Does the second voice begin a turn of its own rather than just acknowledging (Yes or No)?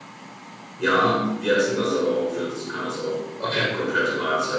No